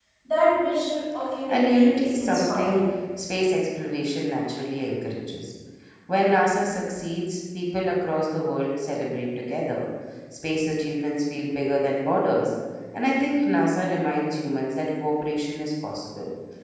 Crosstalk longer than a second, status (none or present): present